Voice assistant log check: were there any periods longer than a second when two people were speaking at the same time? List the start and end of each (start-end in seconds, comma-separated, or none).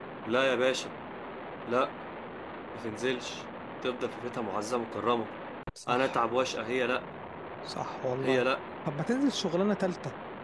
none